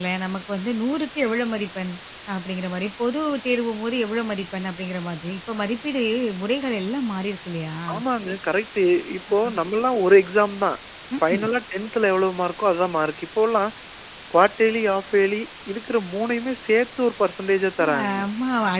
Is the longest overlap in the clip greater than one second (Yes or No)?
No